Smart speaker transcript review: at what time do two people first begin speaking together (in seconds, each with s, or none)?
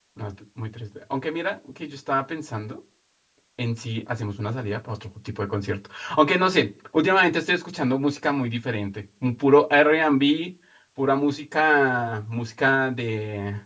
none